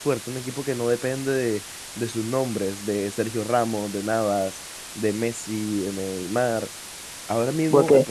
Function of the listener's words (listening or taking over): listening